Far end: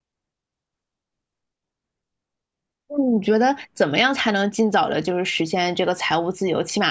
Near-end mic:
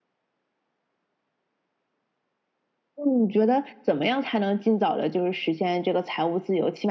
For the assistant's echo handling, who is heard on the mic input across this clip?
echo only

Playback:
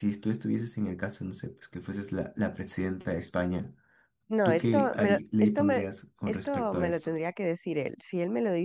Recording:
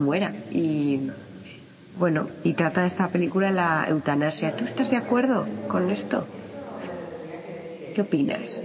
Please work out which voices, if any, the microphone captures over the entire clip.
both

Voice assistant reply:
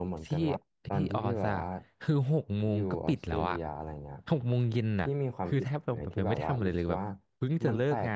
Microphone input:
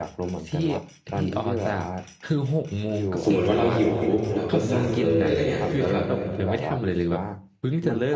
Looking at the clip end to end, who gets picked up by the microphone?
both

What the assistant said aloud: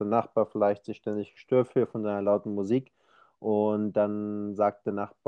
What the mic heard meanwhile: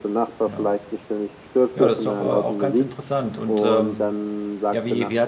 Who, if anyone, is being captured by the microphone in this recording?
both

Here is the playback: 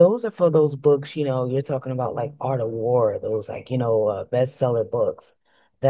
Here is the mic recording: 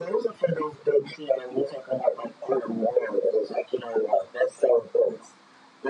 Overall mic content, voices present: echo only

